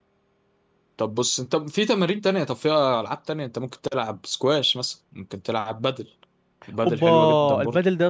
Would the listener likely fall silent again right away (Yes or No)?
No